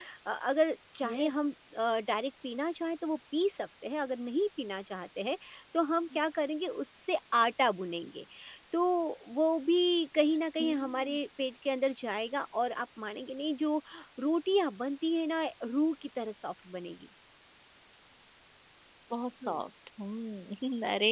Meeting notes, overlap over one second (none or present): none